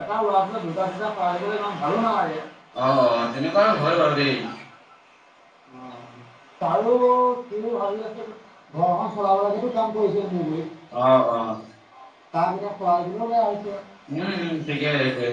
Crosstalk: none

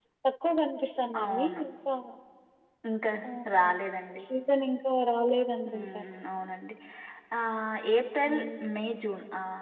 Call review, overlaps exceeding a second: none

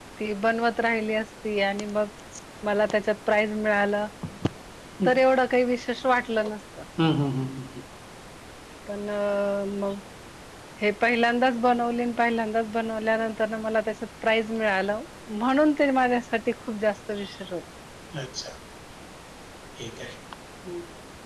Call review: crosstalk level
none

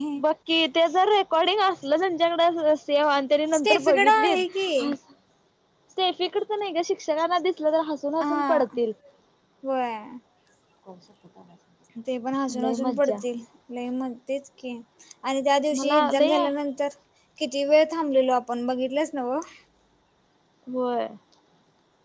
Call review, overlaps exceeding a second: present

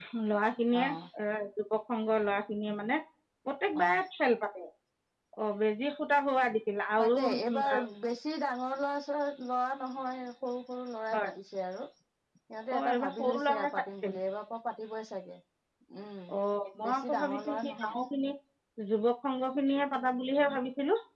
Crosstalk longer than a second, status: present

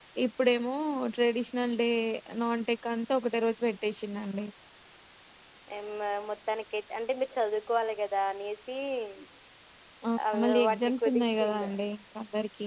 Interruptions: present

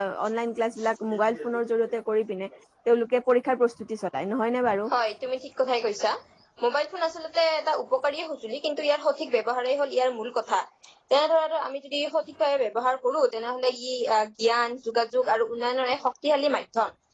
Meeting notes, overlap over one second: none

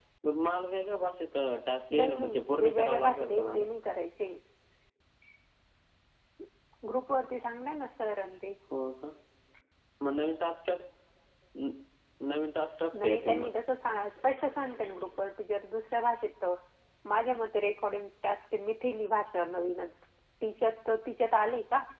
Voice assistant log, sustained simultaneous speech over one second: present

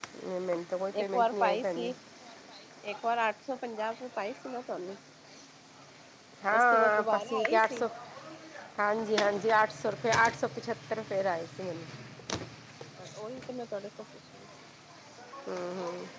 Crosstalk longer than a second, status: present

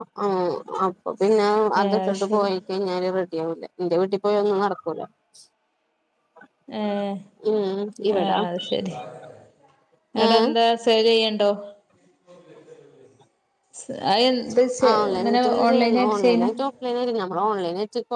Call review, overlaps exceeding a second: present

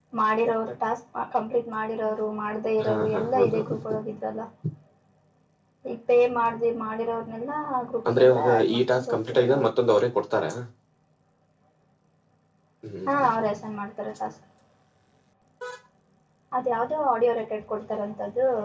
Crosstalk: present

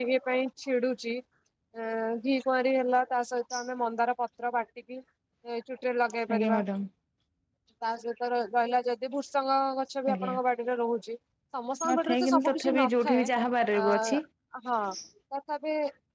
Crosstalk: present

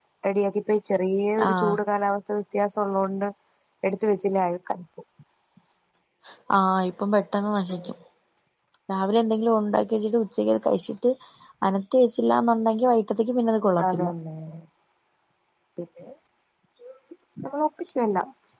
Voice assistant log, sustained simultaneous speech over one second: none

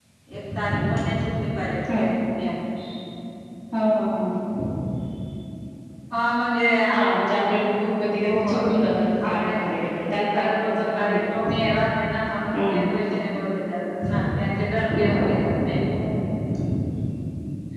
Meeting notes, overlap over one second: present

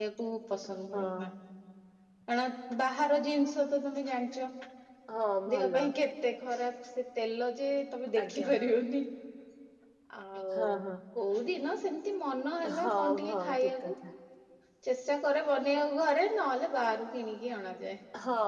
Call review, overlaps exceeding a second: present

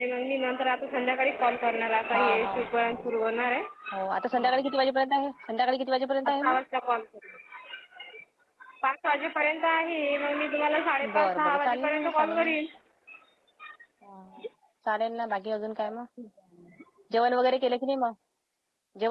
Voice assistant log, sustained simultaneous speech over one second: present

